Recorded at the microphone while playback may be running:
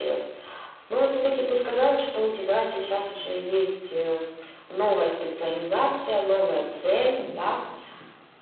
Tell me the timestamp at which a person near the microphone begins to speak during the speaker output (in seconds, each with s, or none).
none